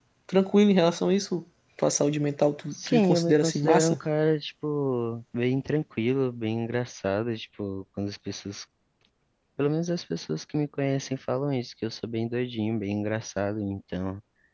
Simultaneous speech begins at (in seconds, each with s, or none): 2.7 s